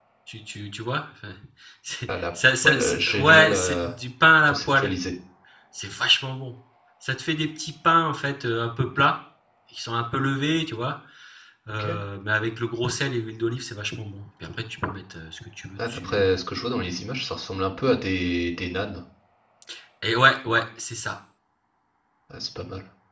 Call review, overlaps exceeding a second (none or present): present